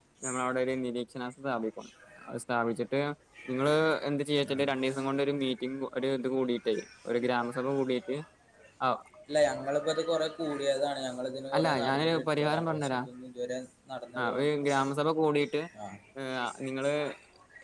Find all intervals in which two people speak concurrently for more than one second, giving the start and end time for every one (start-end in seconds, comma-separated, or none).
11.6-12.9